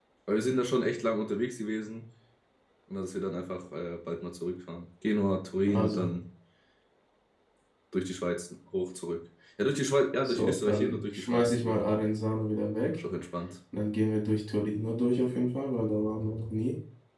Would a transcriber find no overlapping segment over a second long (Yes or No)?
No